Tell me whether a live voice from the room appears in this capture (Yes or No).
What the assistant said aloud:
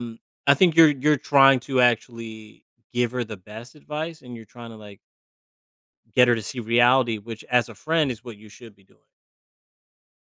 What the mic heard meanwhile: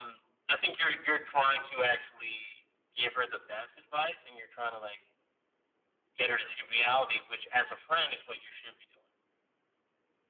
No